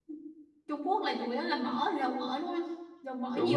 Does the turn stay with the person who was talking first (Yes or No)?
No